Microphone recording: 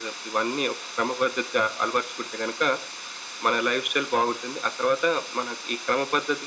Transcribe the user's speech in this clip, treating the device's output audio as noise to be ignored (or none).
none